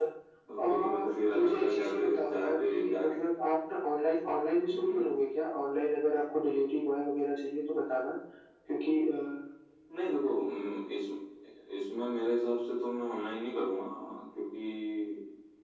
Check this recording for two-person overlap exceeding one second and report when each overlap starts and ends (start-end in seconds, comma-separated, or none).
0.6-3.0